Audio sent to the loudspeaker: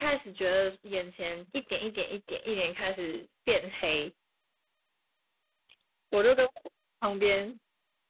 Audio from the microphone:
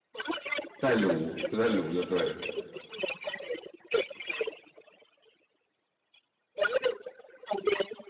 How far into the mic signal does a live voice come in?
0.8 s

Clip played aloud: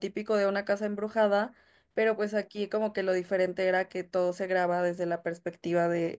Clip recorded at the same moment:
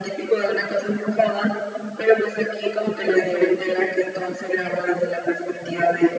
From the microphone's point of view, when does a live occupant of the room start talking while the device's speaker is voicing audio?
3.0 s

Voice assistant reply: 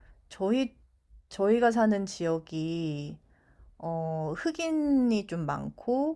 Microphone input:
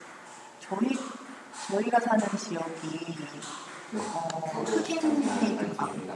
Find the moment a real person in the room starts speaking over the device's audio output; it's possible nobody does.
3.9 s

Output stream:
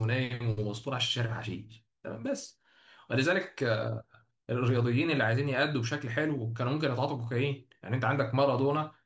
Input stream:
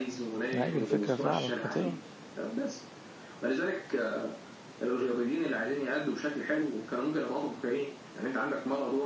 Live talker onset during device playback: 0.6 s

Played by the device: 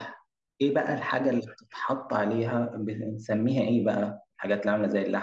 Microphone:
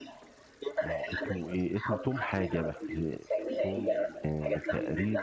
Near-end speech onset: 0.8 s

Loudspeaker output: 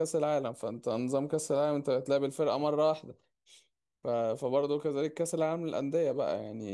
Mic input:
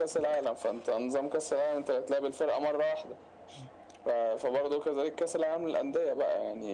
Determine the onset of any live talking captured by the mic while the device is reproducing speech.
none

